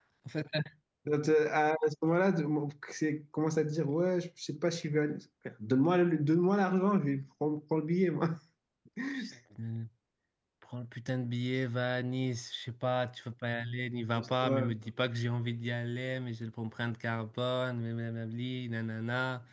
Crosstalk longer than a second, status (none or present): none